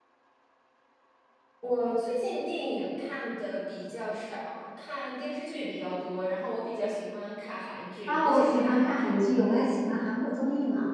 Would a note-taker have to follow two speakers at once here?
Yes, from 8.1 s

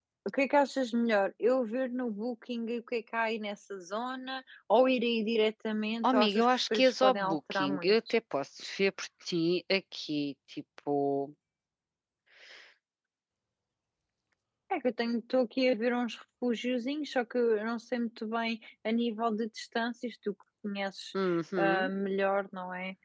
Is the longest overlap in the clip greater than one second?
Yes, from 6.0 s

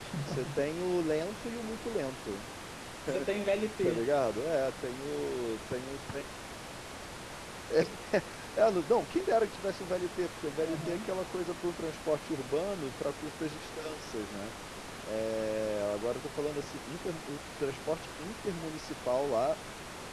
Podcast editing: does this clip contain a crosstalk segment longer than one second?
No

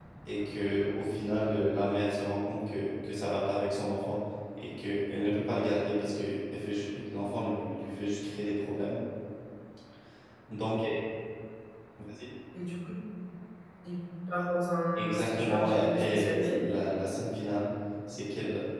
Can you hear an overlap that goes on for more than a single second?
Yes, from 15.0 s

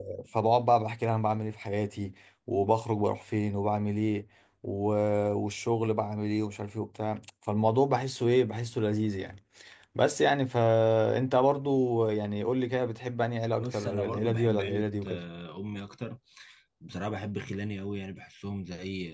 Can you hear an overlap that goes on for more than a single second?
Yes, from 13.6 s

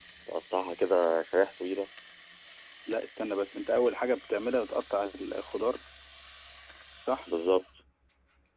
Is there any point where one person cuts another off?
No

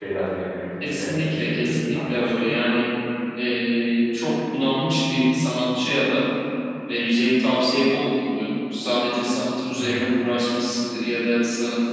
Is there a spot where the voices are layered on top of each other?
Yes, from 0.8 s

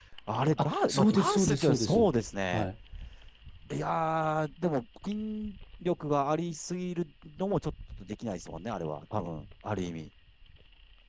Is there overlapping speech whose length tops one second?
Yes, from 0.6 s

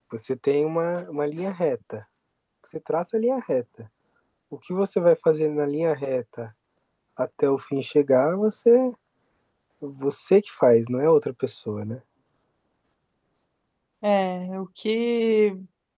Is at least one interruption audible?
No

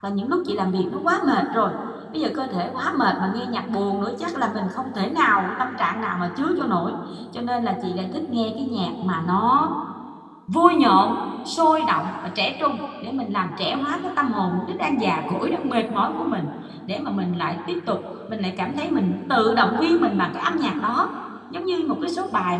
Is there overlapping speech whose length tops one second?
No

